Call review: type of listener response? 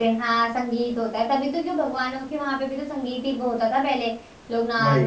listening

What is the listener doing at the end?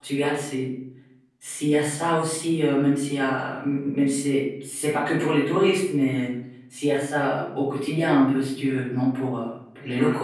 taking over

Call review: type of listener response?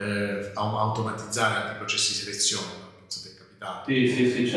taking over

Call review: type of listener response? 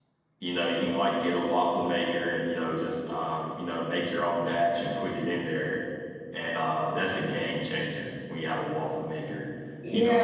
taking over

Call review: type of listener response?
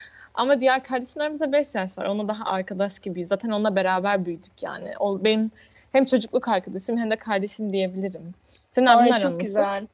taking over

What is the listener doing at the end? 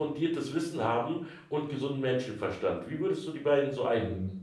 taking over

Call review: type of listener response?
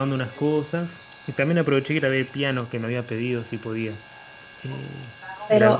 taking over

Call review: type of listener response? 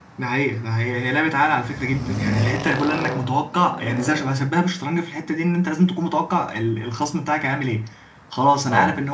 listening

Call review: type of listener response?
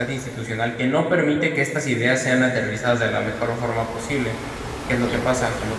listening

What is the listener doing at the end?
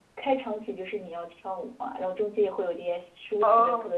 taking over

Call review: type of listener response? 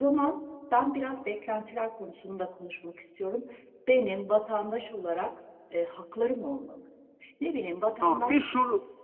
taking over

